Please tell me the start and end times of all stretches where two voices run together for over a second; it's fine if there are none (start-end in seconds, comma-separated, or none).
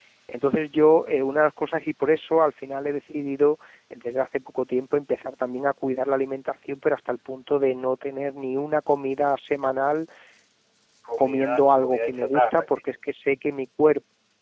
11.2-12.8